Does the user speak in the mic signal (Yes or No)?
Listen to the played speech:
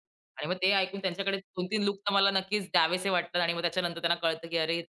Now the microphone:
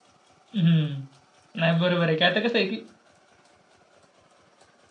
Yes